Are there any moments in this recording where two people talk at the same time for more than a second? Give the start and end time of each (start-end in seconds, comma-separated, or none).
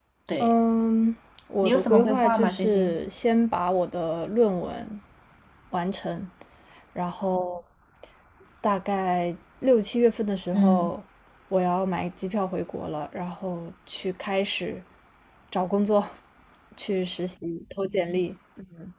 1.6-3.0